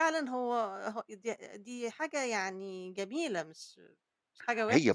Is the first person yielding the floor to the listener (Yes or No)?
Yes